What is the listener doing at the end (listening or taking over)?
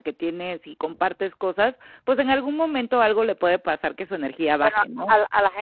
taking over